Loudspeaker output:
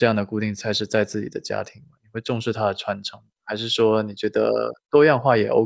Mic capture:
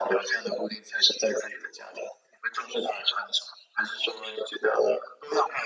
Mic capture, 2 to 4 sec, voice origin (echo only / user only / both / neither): echo only